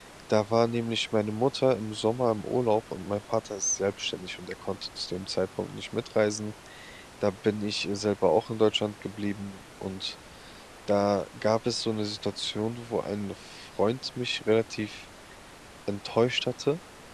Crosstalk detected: No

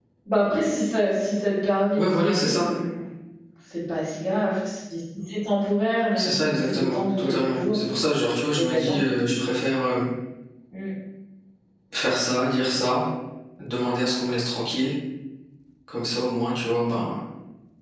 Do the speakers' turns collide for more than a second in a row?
Yes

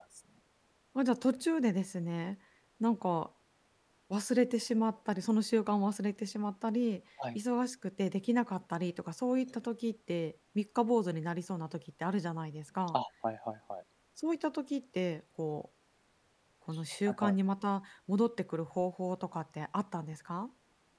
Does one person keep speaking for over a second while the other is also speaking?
No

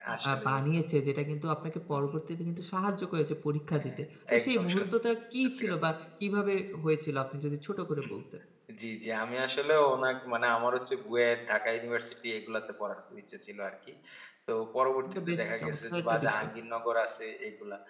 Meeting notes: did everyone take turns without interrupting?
No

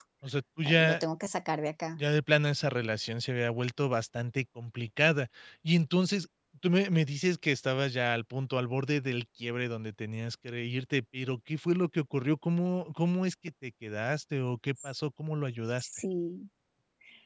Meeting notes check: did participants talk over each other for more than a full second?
No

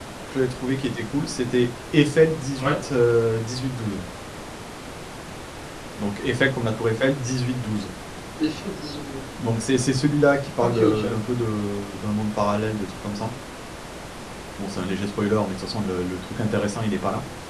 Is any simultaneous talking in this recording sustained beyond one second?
No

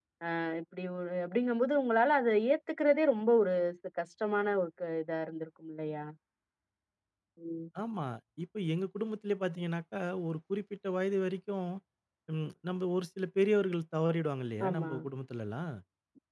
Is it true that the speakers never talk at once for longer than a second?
Yes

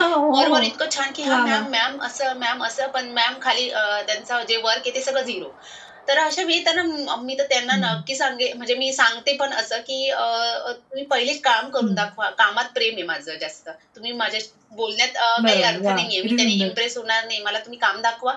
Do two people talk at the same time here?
Yes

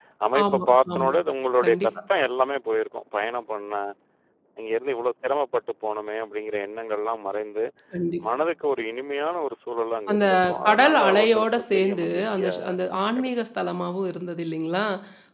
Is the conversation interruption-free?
No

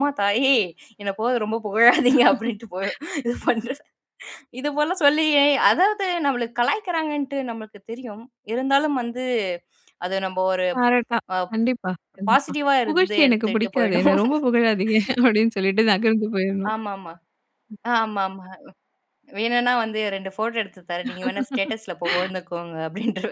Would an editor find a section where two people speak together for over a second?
Yes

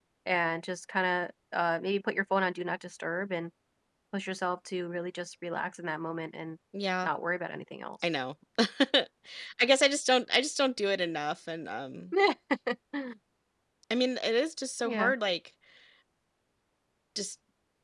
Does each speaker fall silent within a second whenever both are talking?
Yes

